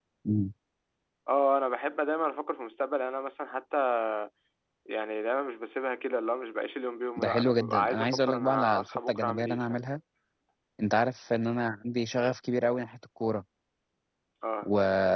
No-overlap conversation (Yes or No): No